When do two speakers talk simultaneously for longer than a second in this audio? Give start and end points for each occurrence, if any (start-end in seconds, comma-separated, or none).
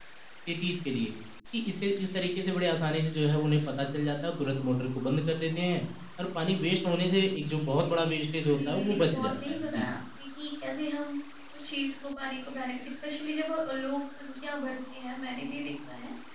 8.6-9.9